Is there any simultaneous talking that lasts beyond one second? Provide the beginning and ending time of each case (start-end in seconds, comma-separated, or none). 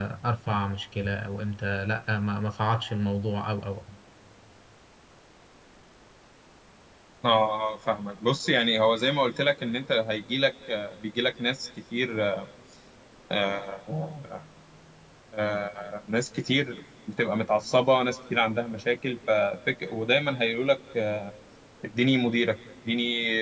none